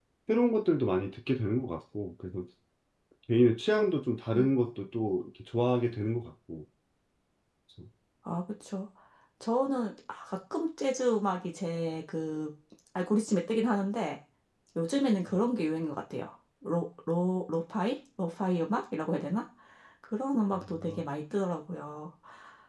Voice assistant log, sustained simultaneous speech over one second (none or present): none